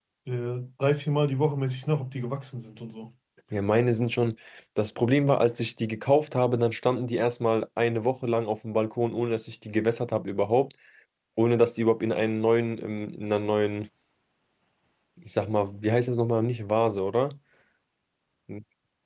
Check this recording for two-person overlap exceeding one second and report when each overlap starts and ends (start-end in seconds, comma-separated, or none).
none